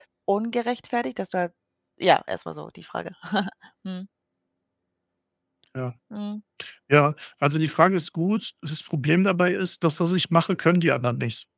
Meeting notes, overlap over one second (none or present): none